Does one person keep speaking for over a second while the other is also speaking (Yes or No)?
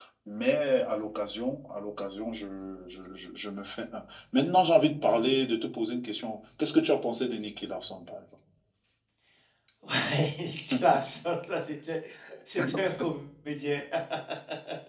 No